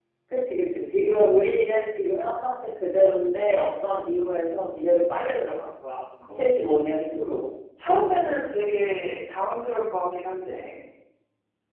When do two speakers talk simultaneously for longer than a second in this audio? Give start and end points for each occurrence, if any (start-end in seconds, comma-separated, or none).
none